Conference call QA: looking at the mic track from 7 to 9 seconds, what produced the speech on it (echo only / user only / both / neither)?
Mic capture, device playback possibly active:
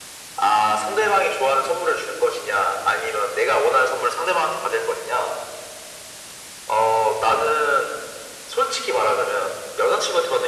echo only